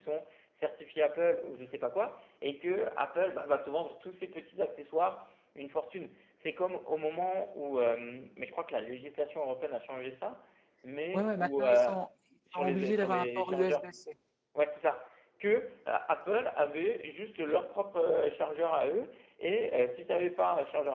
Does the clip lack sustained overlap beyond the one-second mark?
No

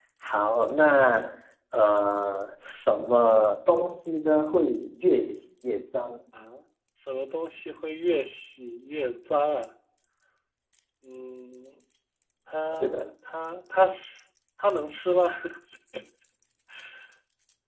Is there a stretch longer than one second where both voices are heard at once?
No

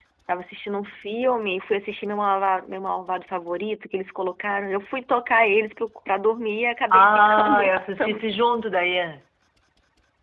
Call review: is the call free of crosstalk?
No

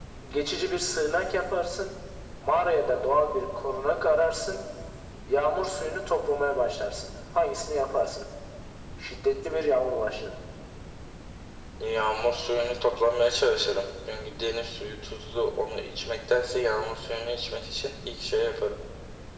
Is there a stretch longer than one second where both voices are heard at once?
No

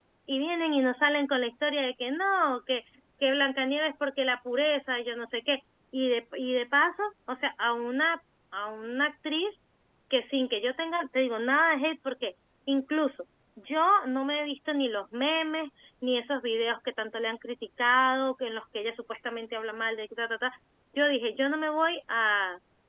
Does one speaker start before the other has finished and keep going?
No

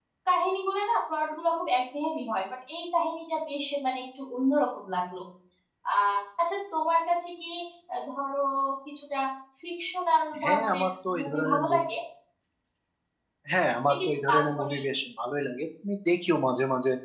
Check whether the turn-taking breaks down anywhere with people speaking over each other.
Yes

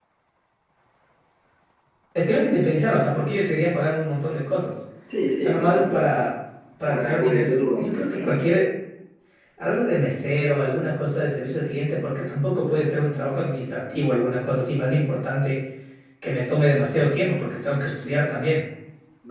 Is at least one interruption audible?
Yes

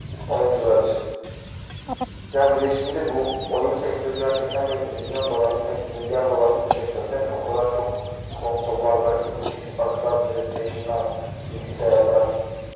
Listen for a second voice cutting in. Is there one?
No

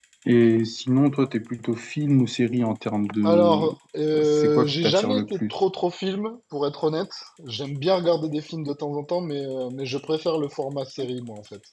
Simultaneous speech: Yes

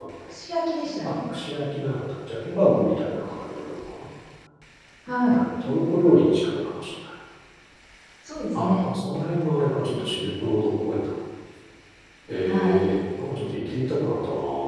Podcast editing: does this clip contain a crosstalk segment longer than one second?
No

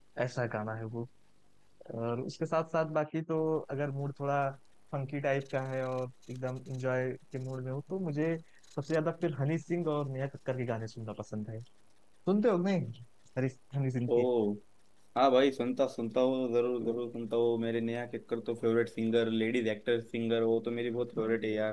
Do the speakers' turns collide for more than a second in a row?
No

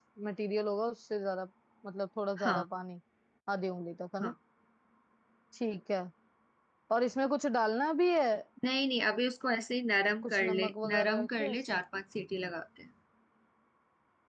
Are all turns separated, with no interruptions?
No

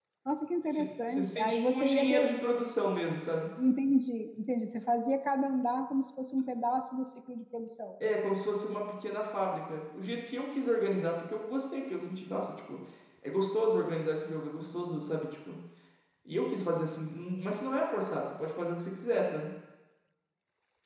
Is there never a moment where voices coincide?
No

